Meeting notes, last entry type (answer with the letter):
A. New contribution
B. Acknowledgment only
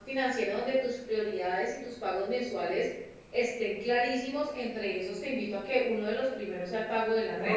A